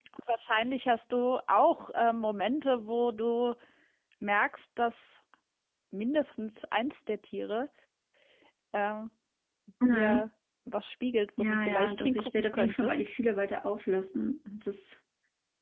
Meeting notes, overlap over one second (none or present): present